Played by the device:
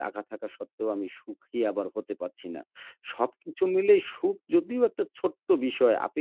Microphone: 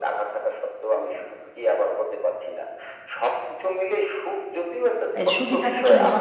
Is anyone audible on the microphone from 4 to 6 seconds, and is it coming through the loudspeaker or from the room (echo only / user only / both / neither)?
both